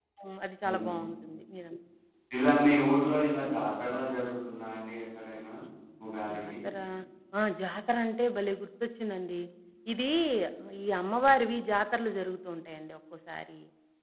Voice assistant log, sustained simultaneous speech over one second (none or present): none